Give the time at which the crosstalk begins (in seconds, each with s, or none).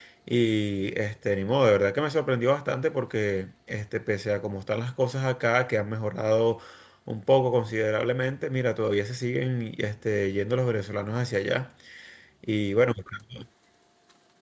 none